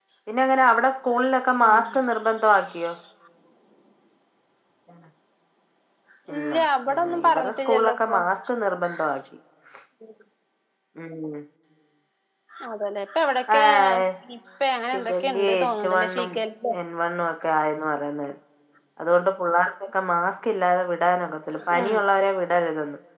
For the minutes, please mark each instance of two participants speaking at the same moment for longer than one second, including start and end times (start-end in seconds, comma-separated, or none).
6.9-8.2, 14.9-16.3